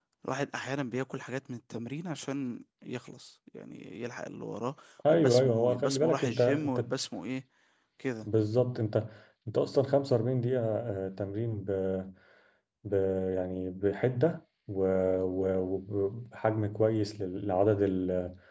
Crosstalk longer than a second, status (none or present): present